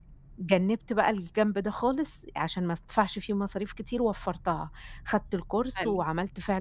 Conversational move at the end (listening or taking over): listening